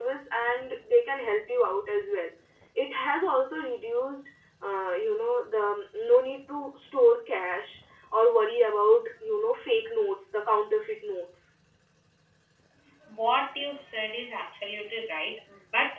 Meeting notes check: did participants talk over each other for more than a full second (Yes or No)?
No